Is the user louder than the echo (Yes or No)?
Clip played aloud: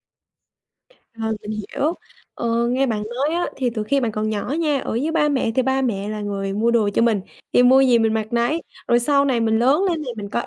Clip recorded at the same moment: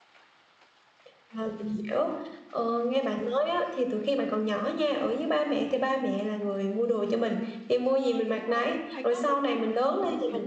No